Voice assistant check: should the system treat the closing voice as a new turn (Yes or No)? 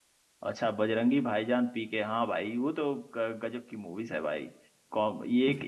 No